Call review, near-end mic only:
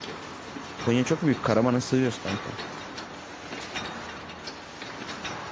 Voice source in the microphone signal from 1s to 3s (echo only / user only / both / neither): user only